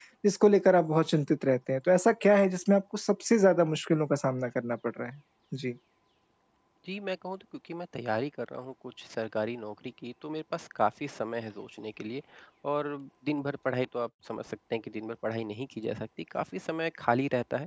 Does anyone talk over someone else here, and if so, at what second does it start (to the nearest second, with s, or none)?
none